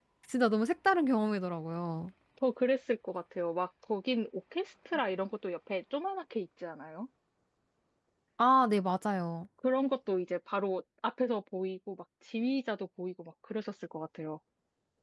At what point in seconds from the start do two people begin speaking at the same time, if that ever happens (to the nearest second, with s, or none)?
none